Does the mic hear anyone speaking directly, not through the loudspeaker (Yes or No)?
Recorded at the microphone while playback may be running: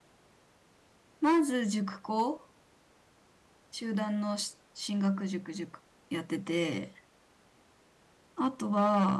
Yes